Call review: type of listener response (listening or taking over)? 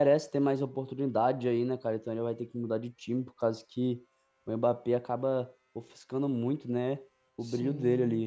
taking over